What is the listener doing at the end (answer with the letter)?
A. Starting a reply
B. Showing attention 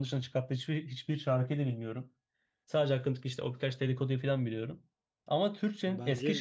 B